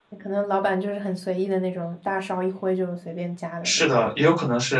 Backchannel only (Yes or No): No